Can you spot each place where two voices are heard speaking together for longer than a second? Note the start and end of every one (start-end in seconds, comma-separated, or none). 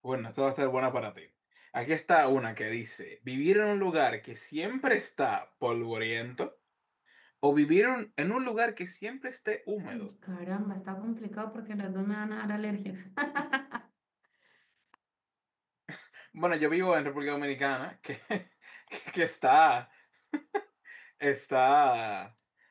none